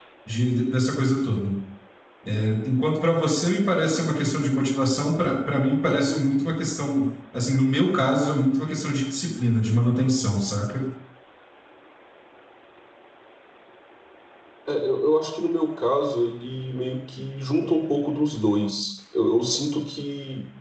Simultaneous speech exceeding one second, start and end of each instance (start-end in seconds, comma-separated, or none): none